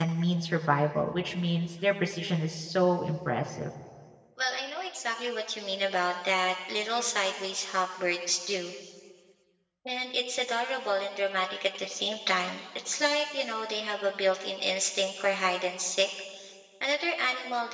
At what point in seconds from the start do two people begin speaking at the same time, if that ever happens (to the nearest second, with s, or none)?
none